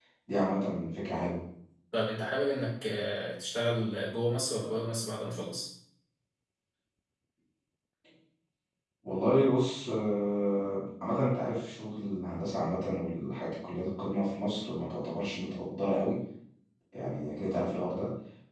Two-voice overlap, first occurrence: none

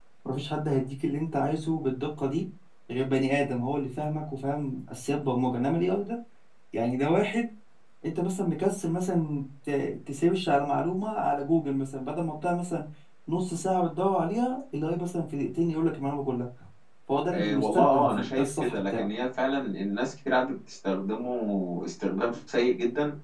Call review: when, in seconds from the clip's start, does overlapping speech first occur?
17 s

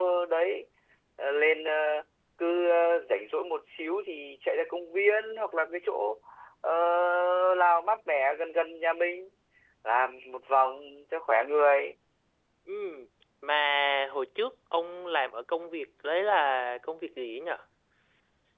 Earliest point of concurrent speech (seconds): none

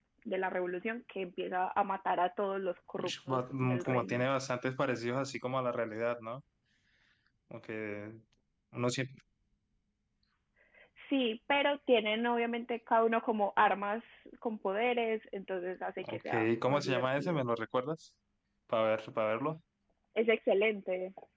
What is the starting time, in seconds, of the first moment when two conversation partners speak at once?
3 s

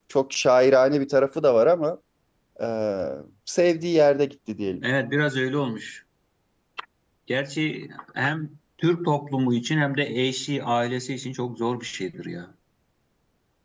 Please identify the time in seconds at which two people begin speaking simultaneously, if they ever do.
none

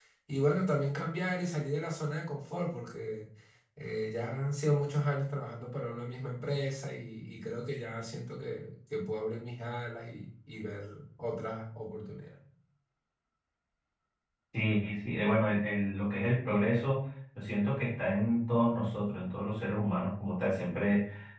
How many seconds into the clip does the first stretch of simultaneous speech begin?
none

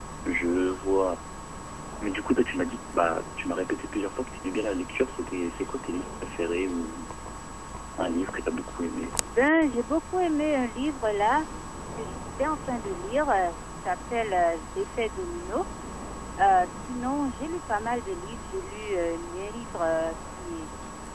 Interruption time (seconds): none

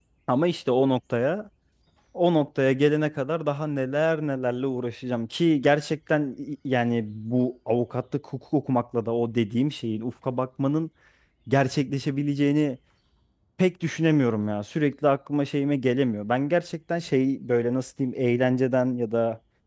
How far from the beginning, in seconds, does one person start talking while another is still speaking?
none

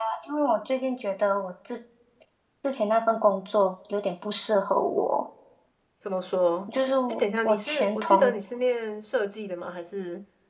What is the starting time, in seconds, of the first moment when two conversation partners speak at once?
7 s

